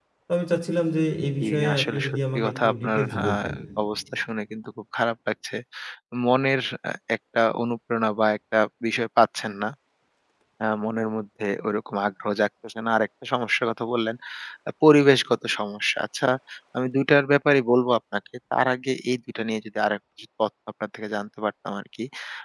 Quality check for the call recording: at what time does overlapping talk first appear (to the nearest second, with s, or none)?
1 s